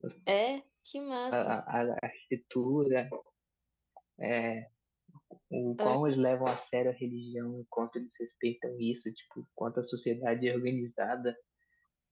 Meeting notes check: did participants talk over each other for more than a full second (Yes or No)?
No